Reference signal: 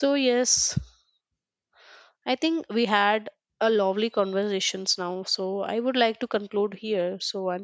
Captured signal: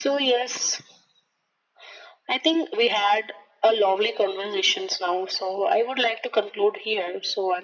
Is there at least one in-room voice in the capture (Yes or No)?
No